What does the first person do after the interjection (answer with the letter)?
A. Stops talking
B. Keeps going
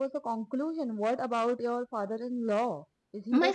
A